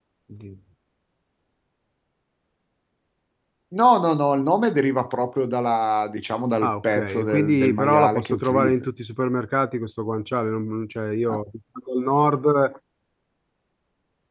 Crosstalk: present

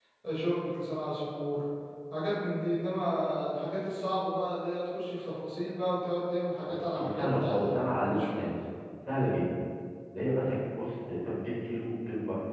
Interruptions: present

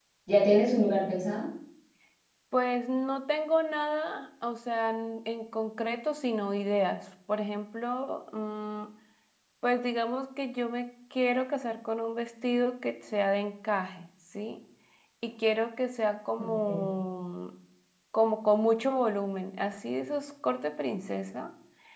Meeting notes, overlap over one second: none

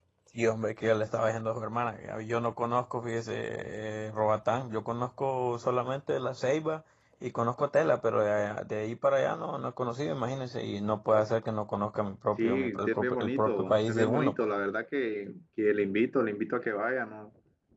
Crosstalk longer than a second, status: present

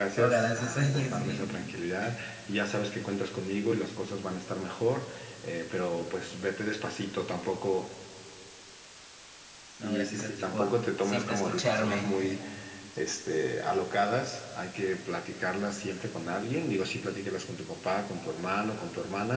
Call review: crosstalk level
present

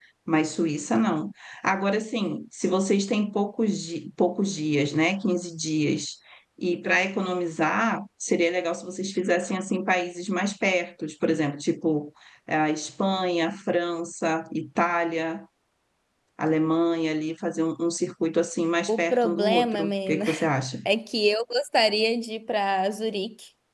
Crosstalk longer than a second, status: present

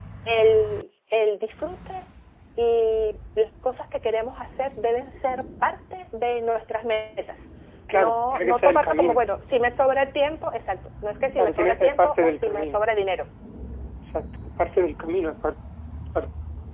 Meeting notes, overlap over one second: present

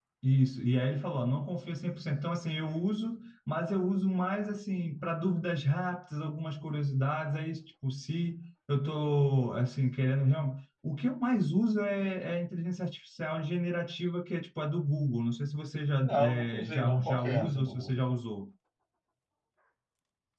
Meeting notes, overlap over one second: present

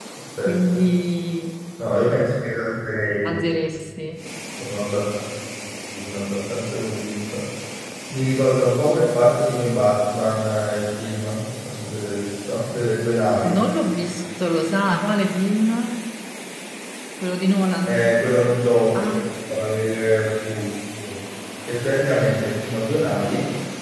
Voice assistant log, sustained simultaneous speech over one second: none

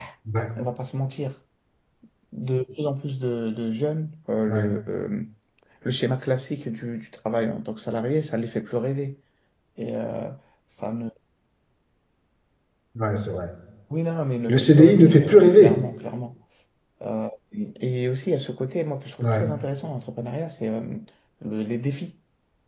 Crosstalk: present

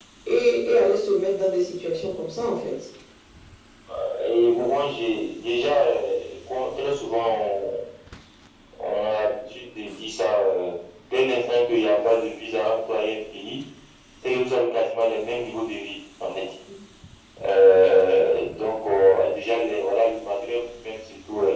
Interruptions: none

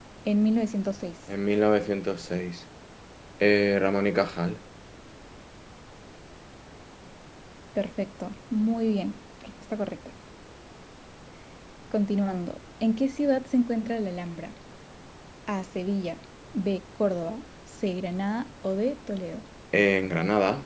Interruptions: none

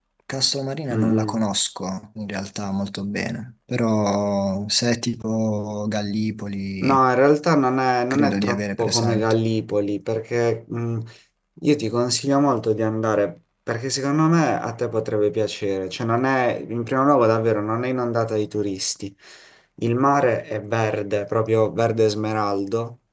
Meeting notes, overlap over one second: present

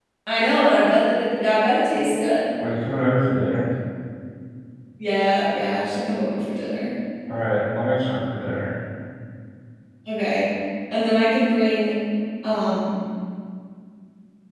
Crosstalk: none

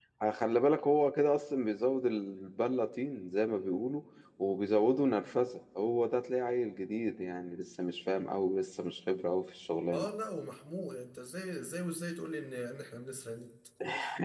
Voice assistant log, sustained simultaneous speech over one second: none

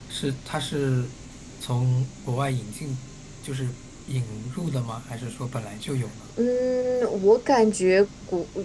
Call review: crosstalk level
none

